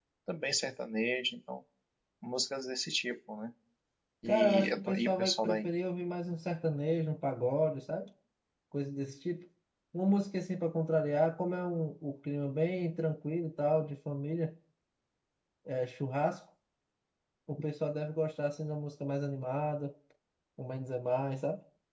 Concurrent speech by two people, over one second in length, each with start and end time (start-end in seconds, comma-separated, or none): 4.3-5.7